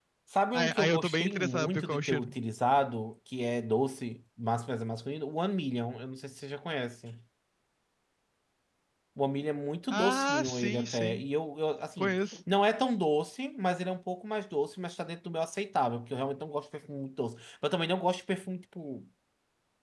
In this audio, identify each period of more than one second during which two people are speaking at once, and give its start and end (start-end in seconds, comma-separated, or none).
0.5-2.3, 9.9-11.2